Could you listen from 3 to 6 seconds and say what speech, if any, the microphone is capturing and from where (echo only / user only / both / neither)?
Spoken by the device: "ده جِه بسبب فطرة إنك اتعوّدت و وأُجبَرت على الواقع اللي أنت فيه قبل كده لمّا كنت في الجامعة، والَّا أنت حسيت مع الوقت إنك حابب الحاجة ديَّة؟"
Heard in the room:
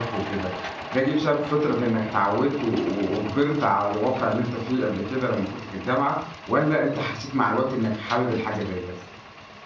echo only